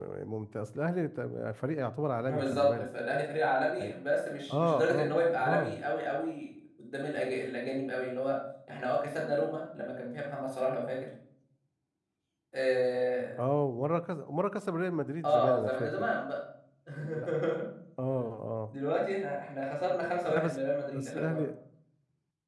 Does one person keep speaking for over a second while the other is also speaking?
Yes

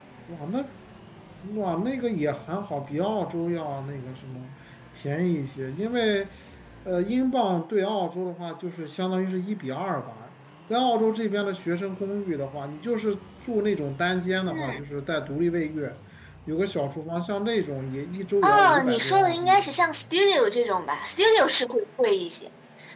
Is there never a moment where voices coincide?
No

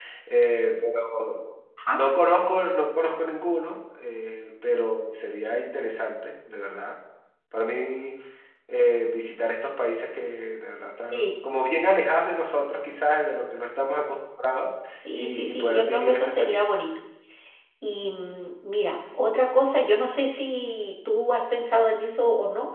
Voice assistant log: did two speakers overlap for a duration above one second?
Yes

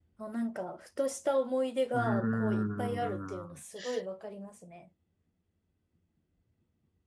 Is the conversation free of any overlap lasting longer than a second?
No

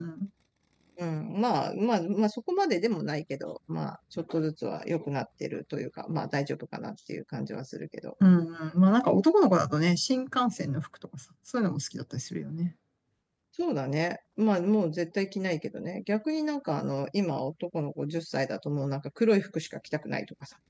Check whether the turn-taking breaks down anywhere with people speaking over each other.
No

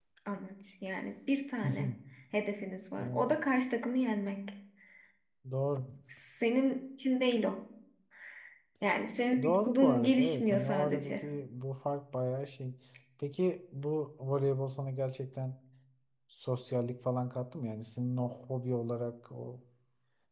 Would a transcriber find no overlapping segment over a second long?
No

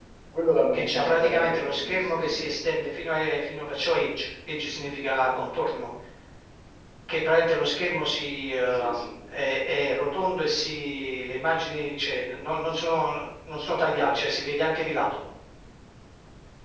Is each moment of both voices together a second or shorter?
No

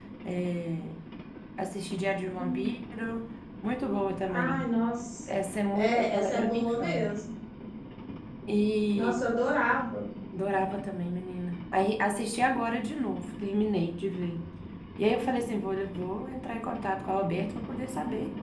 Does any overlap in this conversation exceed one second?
Yes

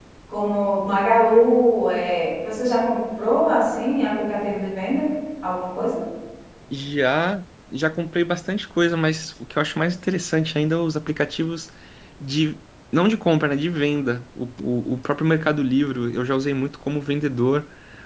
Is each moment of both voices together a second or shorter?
Yes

